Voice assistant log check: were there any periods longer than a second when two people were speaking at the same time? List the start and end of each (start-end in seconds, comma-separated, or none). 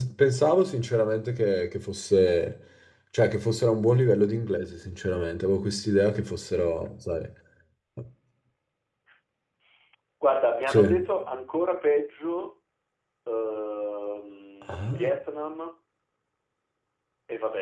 none